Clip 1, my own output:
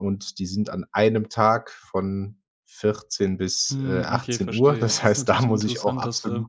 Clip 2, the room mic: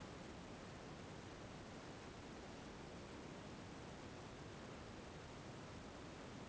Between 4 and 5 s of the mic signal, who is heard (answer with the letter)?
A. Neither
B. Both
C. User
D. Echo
A